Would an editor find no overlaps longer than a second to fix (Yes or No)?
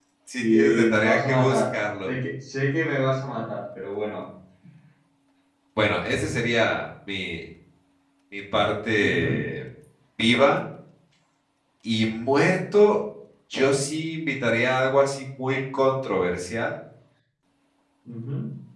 No